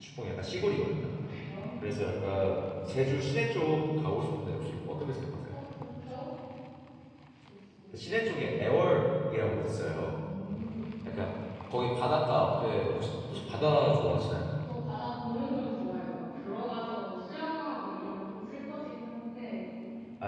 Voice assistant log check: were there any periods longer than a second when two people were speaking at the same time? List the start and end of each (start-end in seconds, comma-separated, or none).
none